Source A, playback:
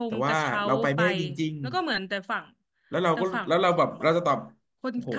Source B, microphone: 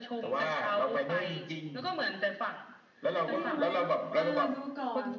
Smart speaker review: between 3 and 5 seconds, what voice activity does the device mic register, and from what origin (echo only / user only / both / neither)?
both